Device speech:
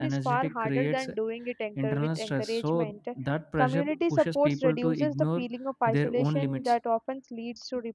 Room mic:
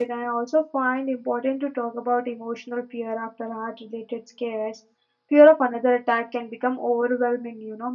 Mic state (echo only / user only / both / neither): user only